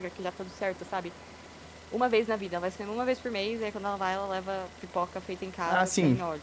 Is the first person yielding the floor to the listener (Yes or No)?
Yes